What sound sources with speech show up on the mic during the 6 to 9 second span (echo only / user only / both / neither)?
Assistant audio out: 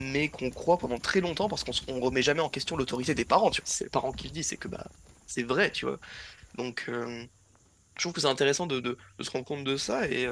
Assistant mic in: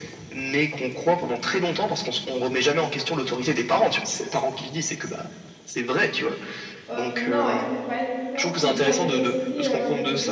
both